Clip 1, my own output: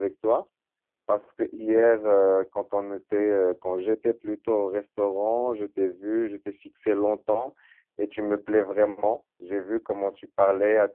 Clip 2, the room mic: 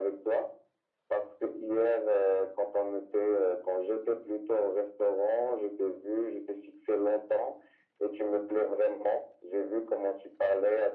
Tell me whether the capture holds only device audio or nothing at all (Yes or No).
Yes